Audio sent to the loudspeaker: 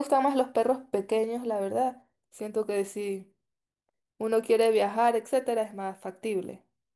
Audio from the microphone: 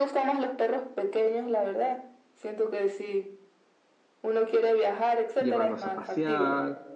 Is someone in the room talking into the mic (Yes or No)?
Yes